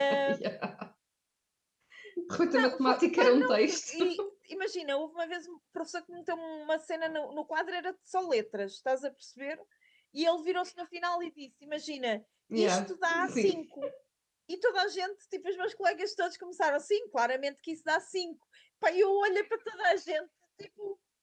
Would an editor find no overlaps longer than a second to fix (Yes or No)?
No